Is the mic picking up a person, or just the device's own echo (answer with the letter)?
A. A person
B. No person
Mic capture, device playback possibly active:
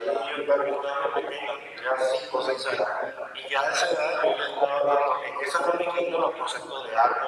B